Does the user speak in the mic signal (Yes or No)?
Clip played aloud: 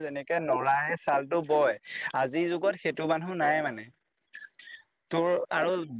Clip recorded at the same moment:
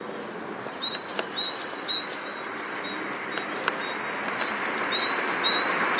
No